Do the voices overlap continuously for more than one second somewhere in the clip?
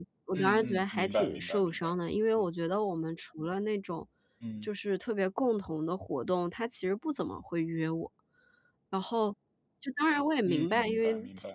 Yes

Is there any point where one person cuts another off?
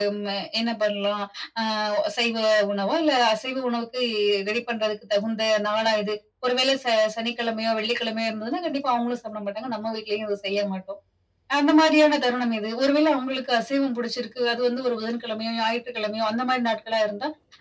No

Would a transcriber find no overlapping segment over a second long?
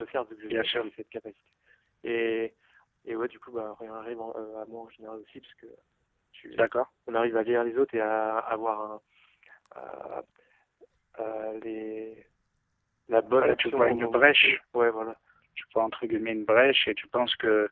No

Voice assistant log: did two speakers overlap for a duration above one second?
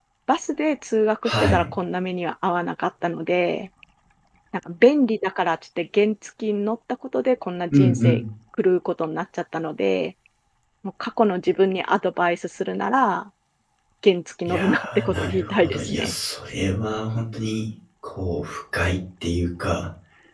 Yes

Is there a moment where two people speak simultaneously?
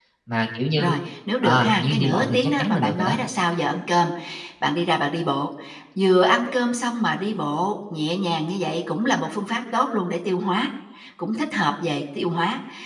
Yes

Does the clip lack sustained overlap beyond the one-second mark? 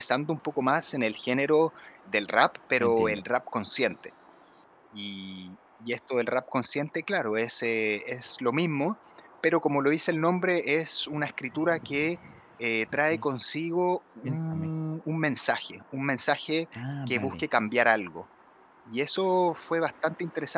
Yes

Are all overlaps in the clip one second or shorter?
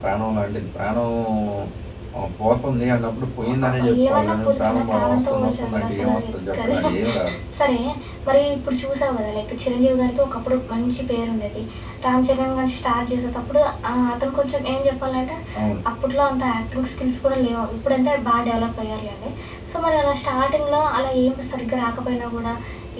No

